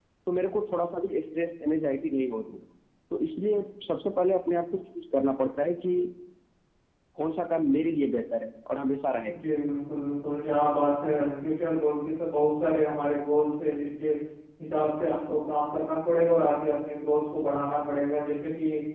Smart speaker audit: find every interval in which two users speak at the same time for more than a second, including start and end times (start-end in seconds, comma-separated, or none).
none